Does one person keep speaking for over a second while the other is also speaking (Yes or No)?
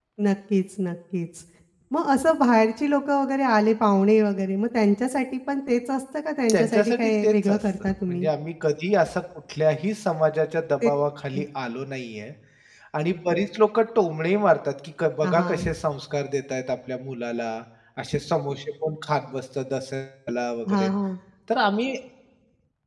Yes